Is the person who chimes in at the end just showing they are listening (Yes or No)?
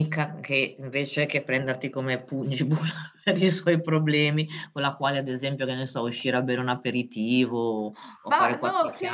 No